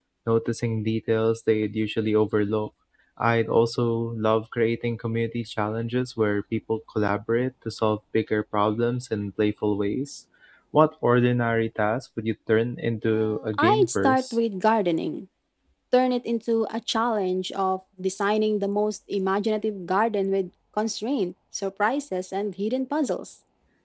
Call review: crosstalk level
present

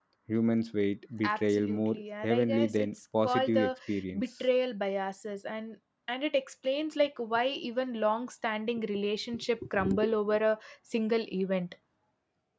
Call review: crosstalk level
present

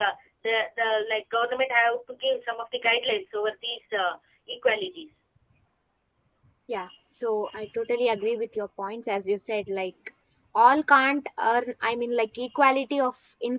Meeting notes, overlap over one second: none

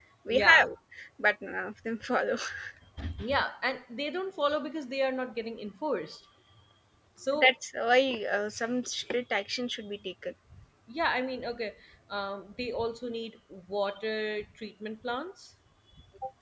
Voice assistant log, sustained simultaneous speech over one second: none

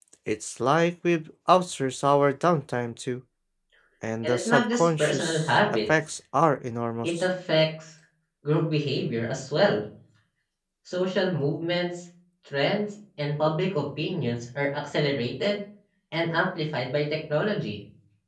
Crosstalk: present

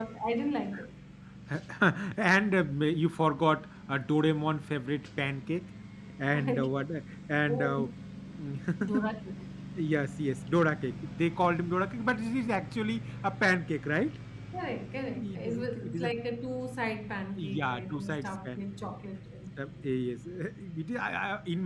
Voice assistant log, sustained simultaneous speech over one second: present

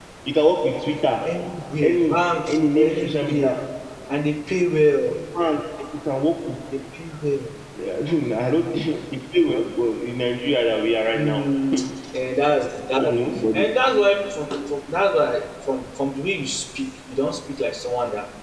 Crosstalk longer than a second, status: present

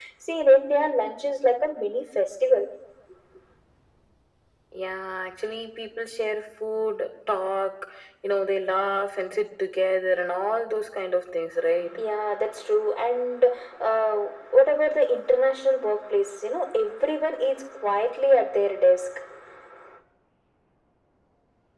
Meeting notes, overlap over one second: none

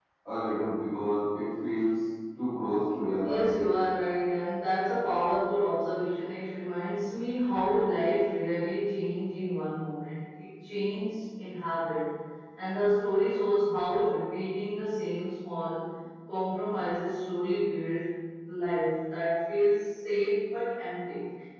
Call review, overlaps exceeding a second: none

